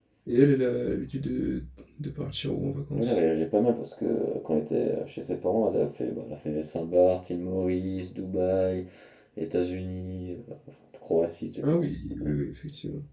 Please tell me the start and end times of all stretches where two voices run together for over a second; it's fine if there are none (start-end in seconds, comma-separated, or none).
none